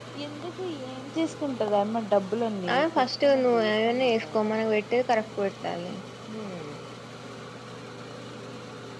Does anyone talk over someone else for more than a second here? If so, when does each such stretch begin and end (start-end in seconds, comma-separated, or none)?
2.7-4.4